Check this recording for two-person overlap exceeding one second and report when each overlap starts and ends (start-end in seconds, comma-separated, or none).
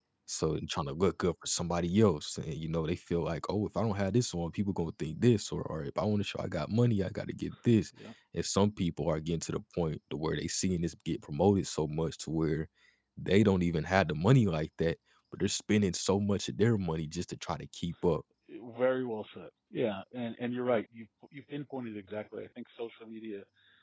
none